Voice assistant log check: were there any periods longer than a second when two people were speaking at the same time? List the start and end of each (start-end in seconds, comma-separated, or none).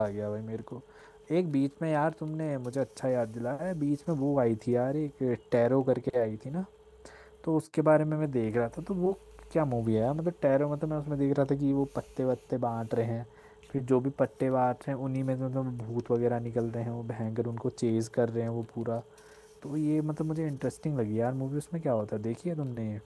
none